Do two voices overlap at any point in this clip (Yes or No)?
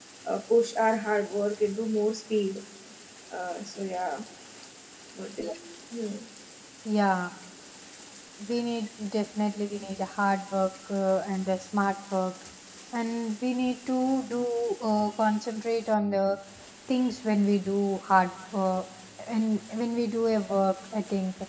No